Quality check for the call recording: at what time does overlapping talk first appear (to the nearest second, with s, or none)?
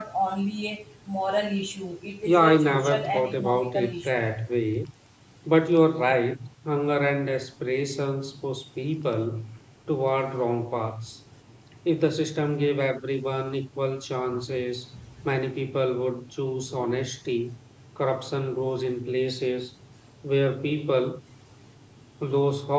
2 s